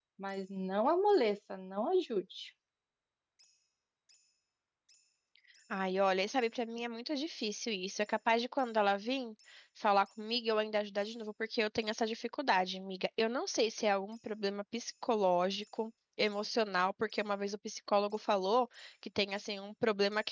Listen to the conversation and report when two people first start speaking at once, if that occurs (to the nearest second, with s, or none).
none